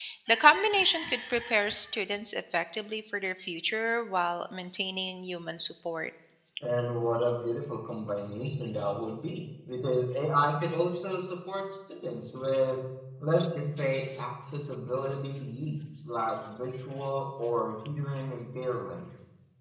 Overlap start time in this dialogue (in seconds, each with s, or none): none